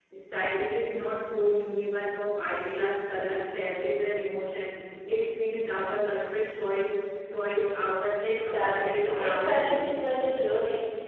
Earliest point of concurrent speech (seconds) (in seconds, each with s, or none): 8.2 s